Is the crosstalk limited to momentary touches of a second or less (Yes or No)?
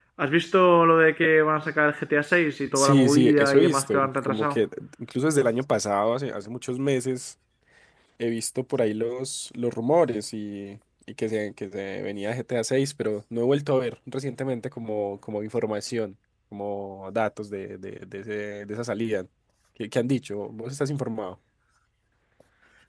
No